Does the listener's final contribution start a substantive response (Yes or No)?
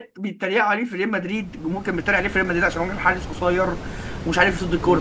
No